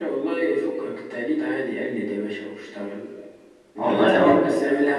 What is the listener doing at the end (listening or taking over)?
listening